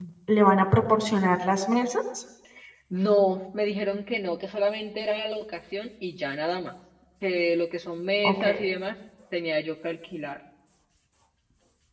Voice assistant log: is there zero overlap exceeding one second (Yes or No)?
Yes